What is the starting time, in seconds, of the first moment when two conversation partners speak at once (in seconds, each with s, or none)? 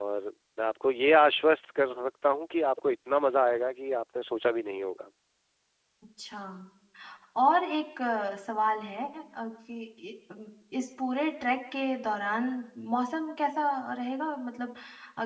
none